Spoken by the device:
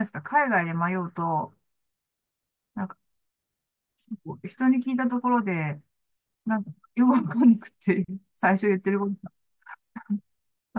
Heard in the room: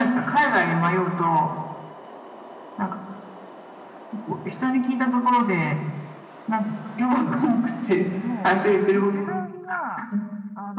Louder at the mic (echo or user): echo